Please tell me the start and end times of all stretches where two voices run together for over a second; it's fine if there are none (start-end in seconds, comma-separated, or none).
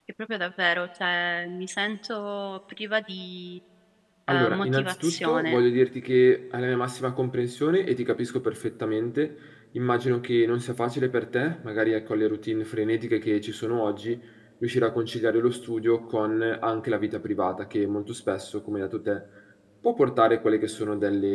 4.3-5.6